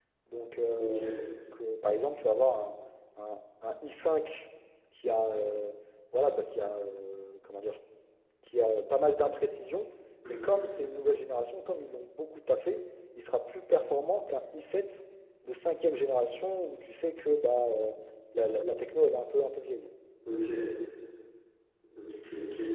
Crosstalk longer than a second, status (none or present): none